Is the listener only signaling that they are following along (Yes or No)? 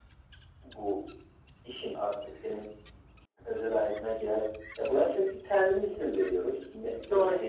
Yes